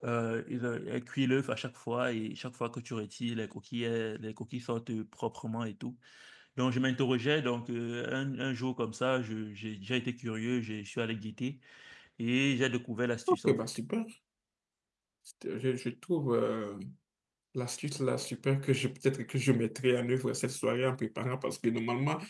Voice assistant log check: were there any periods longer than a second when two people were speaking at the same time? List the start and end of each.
none

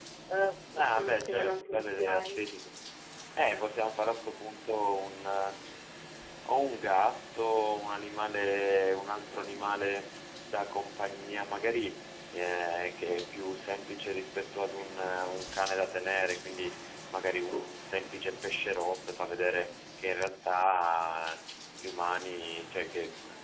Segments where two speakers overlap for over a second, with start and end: 0.8-2.4

